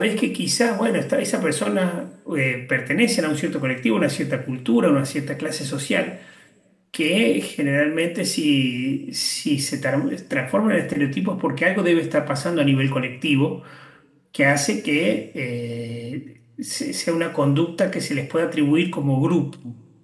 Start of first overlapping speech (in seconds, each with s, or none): none